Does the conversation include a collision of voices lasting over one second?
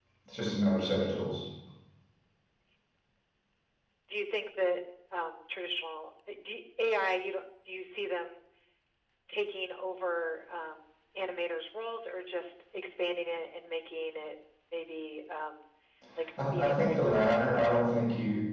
Yes, from 16.5 s

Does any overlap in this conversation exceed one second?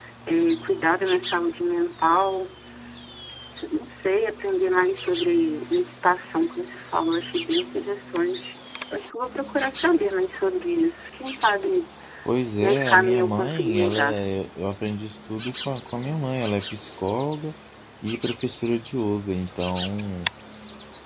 Yes, from 12.6 s

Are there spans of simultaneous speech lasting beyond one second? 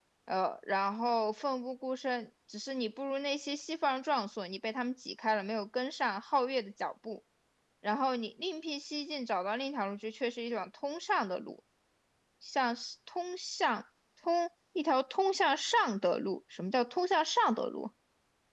No

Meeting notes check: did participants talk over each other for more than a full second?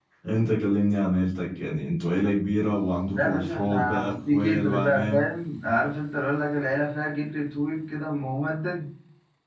Yes, from 3.1 s

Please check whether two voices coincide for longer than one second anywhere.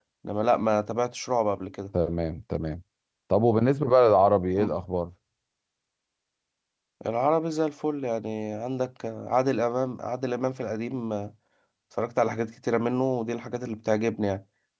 No

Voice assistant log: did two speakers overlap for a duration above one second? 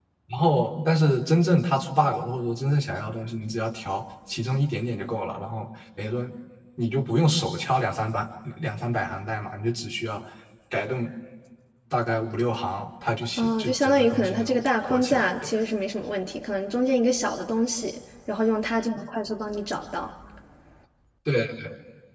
Yes, from 13.4 s

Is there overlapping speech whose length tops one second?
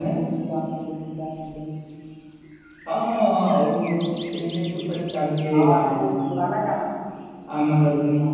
No

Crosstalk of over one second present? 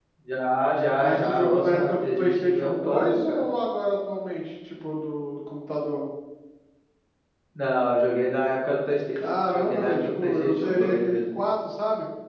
Yes, from 1.0 s

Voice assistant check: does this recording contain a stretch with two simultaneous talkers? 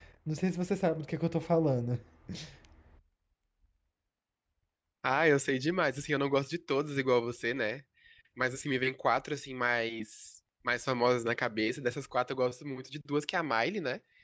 No

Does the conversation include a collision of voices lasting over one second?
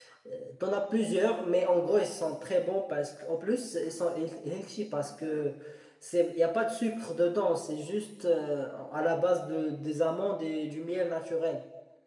No

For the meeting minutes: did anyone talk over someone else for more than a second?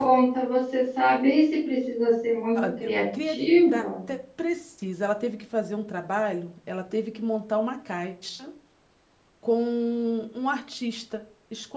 No

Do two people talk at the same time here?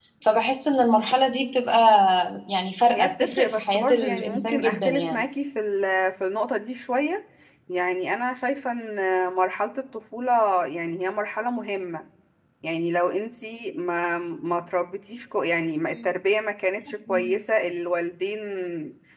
Yes, from 2.9 s

